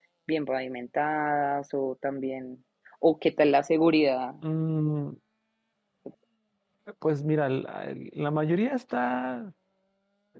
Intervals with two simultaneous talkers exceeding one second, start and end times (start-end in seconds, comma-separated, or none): none